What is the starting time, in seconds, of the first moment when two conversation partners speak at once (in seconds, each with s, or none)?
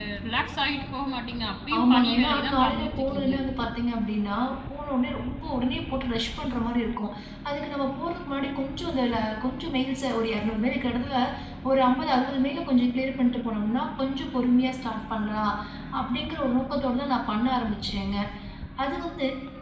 1.7 s